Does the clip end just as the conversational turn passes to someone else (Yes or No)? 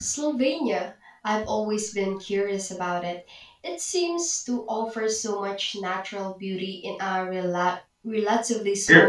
Yes